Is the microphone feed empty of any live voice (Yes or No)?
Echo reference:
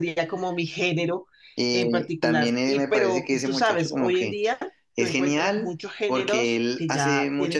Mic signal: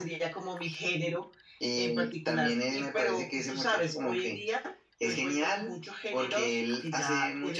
Yes